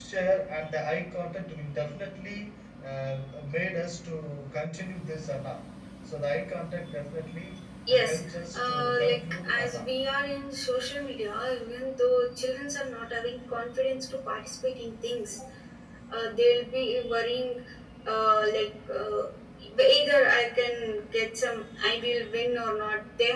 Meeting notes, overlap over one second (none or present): present